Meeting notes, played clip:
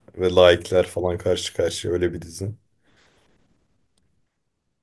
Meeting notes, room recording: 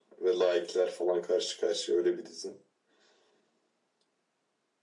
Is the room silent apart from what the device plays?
Yes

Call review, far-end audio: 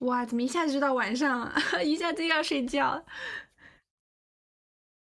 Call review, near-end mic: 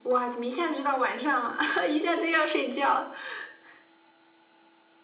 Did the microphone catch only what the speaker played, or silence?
Yes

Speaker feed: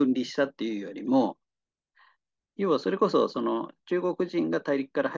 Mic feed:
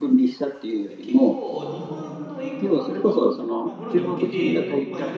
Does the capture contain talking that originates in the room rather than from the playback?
Yes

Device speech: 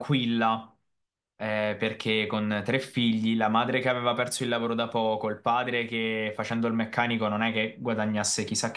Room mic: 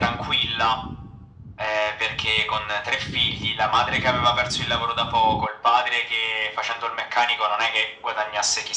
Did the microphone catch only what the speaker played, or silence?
Yes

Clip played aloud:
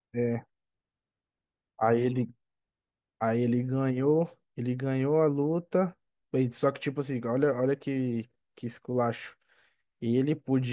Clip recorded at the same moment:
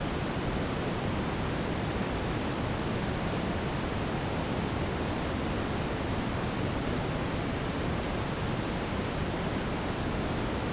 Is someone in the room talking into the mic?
No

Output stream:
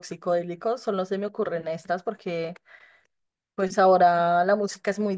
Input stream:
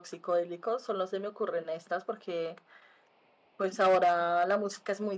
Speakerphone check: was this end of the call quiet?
Yes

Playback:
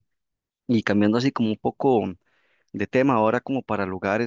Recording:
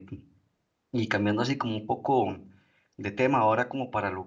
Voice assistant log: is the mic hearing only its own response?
Yes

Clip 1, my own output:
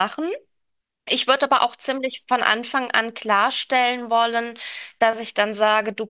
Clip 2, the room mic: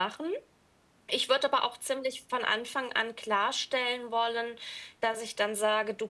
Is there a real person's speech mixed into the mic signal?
No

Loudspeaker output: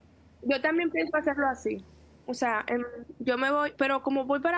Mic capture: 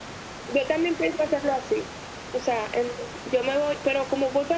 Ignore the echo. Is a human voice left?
No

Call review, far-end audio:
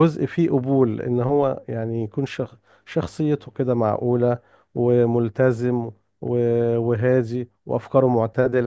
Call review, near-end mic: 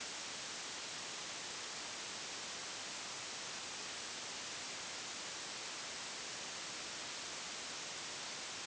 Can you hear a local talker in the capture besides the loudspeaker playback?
No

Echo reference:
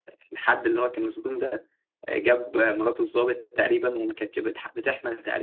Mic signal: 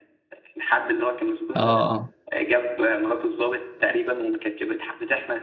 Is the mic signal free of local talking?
No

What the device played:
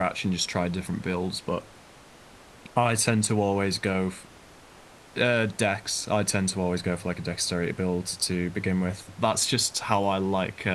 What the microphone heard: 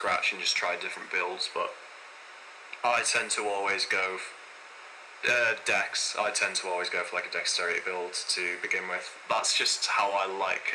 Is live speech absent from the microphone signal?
Yes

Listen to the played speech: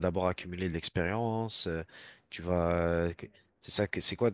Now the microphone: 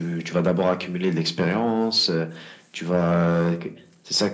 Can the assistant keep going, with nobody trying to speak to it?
Yes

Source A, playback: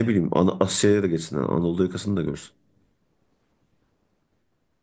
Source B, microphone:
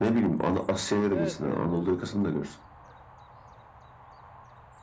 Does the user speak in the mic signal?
Yes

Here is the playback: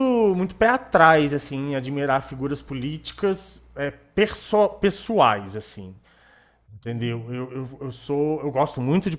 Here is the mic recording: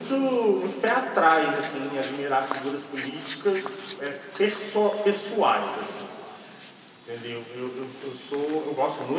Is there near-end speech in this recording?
No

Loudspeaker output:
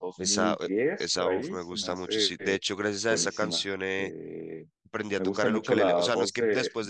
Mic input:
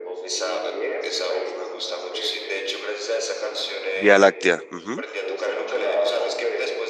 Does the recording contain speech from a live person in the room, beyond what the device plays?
Yes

